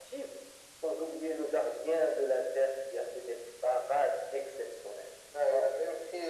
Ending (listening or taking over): taking over